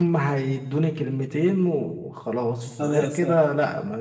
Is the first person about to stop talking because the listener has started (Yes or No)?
No